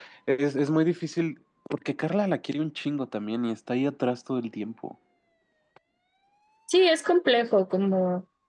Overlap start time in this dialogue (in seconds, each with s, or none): none